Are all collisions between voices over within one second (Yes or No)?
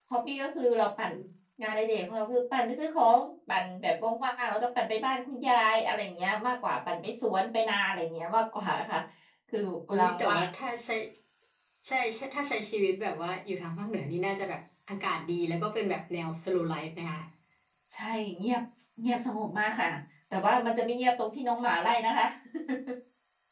Yes